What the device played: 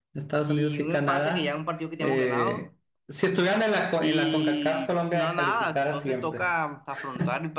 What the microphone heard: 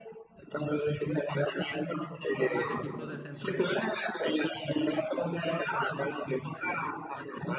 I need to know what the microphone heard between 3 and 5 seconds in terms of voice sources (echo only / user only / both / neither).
both